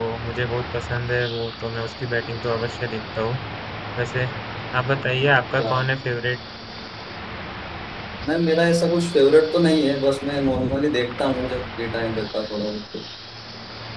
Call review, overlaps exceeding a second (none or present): none